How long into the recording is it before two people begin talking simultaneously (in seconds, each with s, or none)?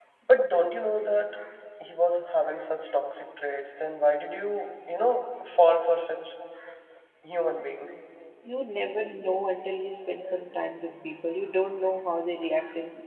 none